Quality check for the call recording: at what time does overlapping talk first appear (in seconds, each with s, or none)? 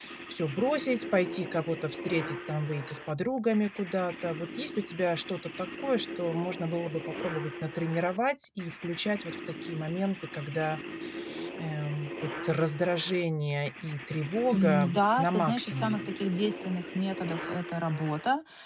14.5 s